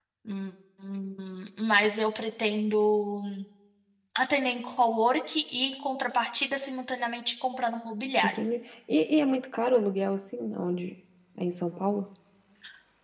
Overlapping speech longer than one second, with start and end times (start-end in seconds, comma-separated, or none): none